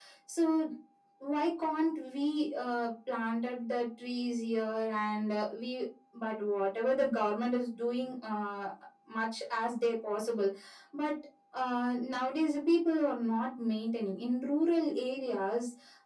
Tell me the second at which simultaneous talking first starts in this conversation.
none

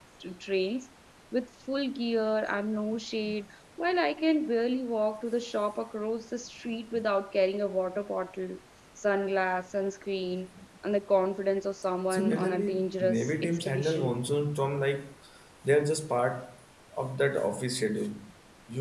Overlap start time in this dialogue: 12.1 s

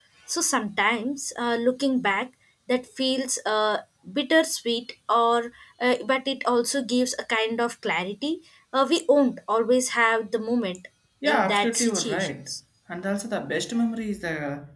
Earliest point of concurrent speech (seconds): 11.2 s

